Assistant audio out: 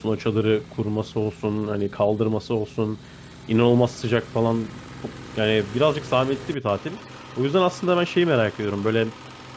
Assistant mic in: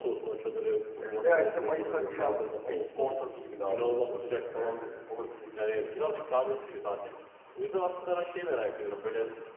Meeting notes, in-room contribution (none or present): present